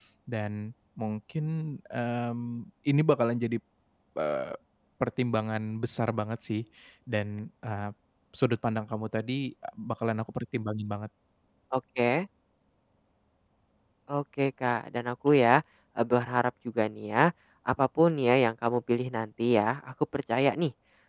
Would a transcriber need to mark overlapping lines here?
No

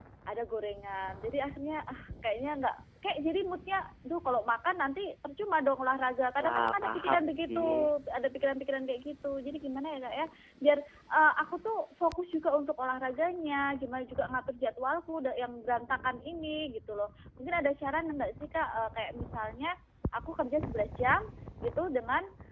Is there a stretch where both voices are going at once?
Yes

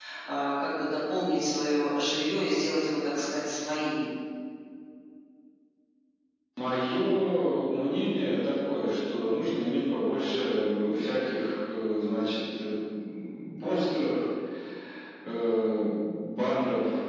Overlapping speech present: No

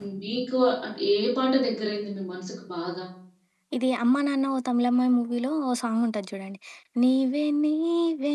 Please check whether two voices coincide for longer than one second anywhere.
No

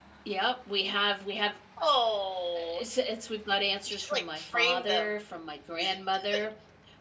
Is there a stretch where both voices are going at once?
Yes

